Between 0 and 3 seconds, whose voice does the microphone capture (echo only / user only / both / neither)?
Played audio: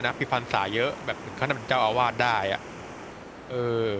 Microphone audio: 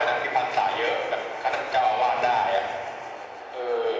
echo only